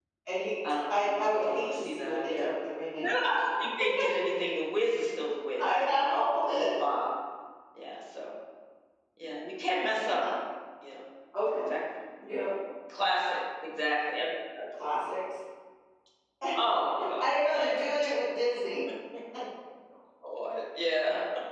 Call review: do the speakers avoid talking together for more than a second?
No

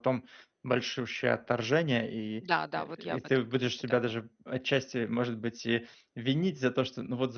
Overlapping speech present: Yes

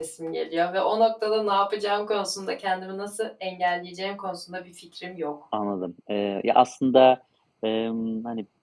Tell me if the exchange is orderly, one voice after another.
Yes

